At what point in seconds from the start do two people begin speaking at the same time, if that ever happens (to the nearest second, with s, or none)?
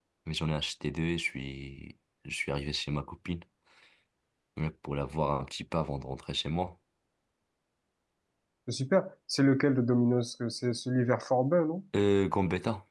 none